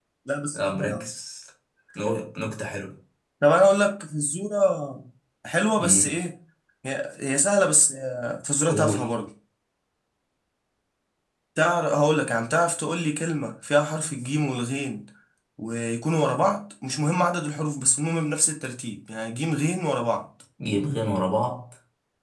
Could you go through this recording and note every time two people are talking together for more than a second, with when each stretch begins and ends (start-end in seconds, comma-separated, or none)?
none